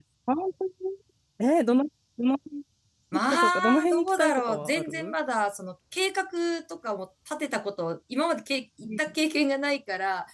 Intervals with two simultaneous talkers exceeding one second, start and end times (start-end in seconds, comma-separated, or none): 3.3-5.1